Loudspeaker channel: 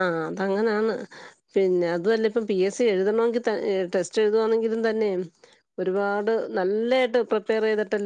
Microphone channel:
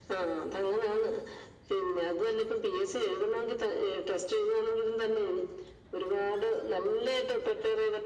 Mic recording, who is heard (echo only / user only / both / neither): echo only